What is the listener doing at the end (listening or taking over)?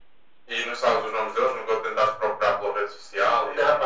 taking over